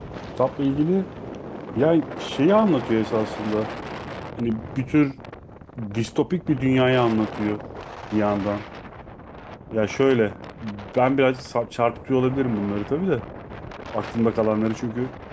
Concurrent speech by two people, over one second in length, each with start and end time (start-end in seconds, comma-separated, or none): none